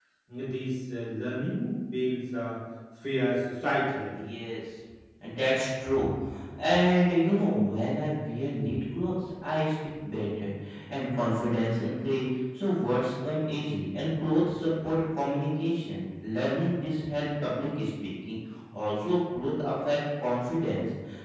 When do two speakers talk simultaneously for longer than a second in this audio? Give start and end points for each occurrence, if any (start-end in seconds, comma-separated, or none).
none